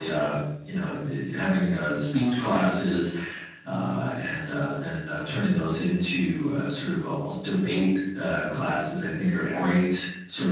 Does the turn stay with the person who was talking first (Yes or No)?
Yes